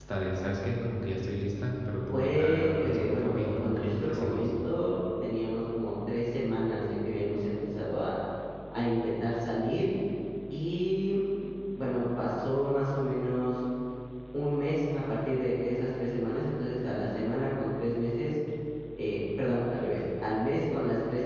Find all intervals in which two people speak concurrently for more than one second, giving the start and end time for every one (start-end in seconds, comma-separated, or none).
2.1-4.5